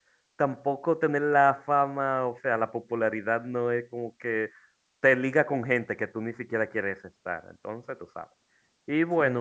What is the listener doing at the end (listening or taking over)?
listening